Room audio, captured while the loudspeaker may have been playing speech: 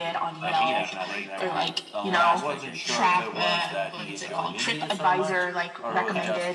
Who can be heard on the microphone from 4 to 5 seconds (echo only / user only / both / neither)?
both